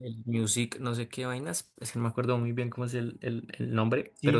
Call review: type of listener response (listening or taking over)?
taking over